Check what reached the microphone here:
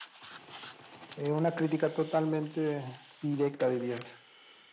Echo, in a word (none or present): present